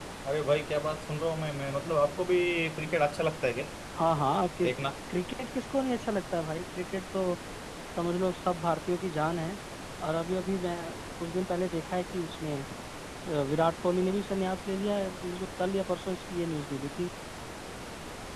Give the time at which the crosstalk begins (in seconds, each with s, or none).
none